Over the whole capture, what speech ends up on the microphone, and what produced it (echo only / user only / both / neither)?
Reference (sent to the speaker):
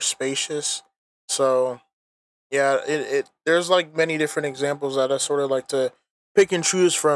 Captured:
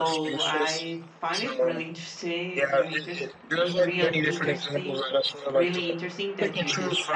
both